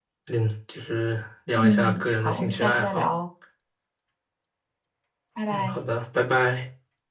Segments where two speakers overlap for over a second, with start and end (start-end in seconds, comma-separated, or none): 1.6-3.1